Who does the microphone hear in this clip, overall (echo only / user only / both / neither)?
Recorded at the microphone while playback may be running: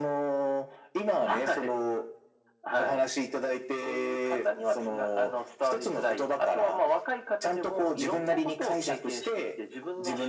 echo only